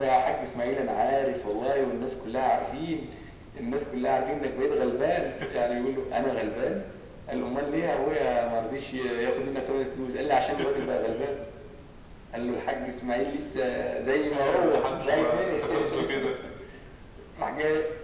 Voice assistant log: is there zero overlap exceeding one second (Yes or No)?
No